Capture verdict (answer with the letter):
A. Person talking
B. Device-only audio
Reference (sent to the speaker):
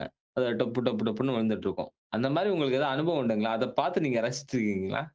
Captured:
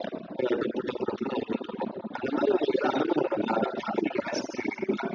B